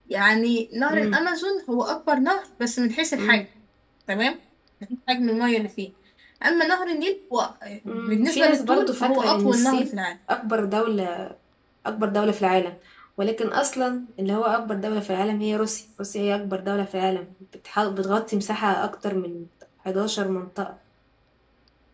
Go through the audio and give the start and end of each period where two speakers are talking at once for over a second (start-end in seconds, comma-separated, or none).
7.9-10.0